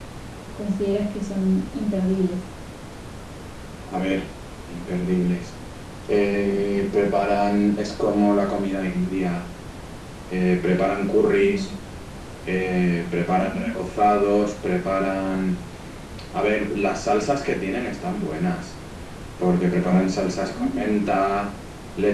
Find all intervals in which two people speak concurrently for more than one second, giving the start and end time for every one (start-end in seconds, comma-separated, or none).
none